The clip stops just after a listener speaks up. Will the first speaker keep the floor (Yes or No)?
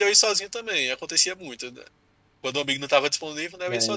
No